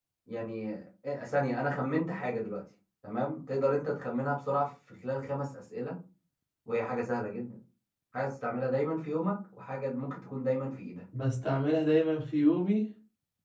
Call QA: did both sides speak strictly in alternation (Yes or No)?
Yes